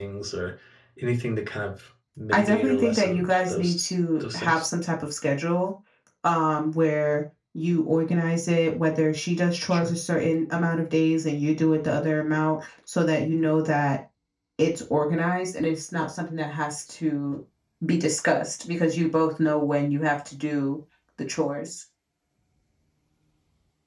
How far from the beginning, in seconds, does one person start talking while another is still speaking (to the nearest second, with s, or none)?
2 s